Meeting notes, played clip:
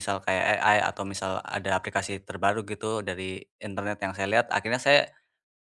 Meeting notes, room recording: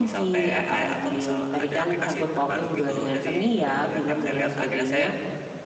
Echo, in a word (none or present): present